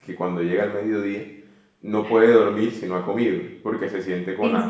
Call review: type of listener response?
listening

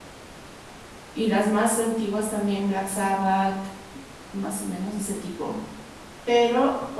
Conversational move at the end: listening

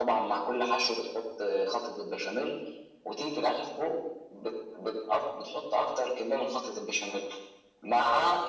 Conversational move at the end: listening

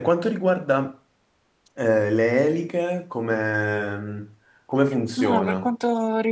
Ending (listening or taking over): taking over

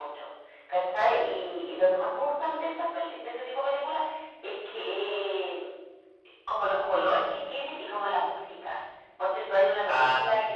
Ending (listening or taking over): listening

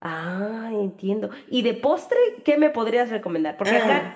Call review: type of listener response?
listening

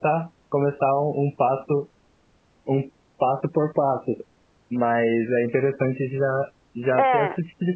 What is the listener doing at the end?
listening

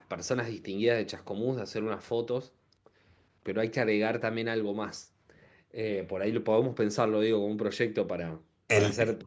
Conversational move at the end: listening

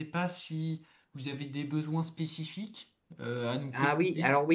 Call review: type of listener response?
taking over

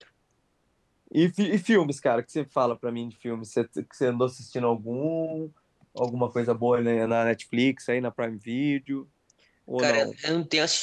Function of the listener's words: taking over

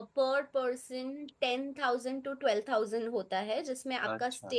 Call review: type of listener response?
listening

